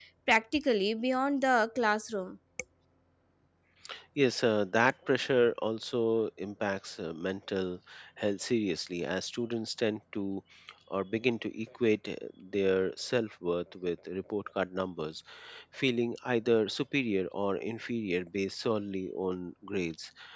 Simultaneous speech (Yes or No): No